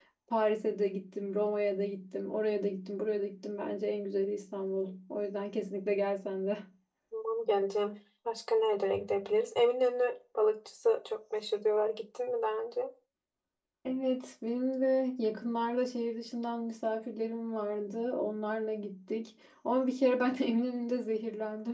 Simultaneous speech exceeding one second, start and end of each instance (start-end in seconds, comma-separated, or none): none